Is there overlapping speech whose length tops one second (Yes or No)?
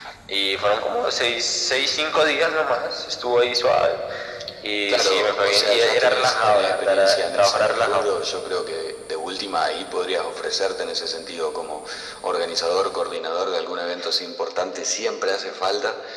Yes